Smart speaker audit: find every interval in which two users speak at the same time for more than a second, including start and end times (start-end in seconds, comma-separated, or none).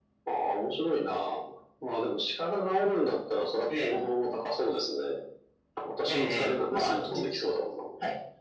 6.1-7.3